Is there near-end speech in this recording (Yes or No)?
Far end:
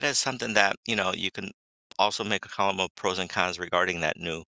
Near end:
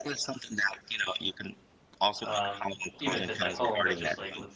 Yes